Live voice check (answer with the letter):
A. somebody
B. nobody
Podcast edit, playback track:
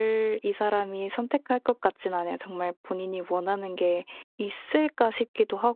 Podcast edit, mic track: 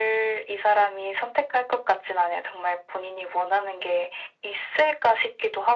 B